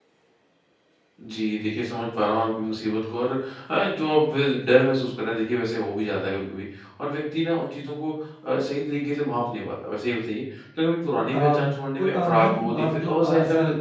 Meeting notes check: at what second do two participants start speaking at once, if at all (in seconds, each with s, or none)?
11.3 s